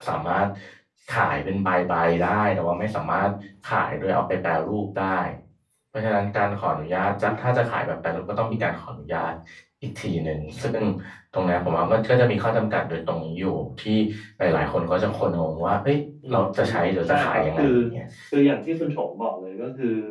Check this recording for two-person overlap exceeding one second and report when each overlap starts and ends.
16.3-17.6

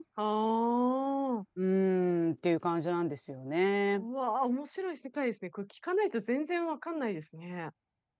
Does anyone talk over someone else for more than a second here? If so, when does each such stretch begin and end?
none

